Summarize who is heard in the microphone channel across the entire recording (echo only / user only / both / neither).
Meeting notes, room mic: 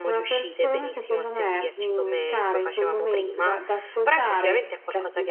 both